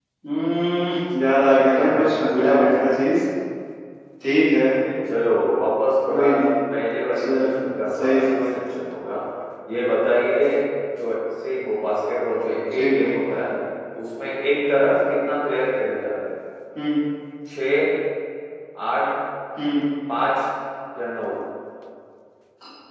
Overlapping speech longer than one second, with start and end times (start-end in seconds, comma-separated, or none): 1.6-2.8